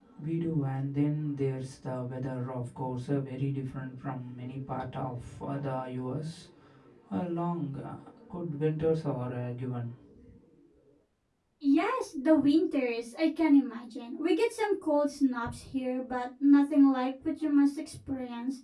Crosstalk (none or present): none